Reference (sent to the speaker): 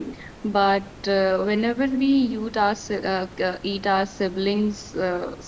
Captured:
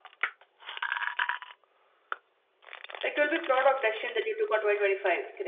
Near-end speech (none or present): present